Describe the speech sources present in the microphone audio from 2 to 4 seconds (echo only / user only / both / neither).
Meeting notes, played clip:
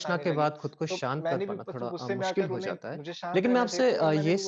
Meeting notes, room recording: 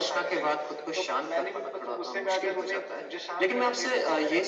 echo only